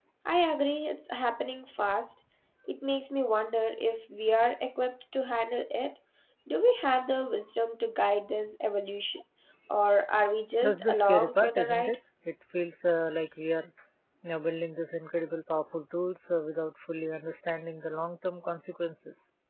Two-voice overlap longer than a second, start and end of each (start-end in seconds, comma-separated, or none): 10.6-11.9